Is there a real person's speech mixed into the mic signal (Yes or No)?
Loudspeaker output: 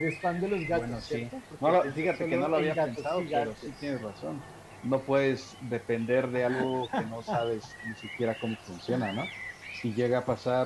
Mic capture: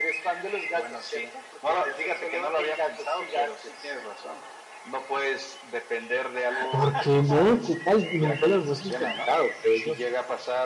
Yes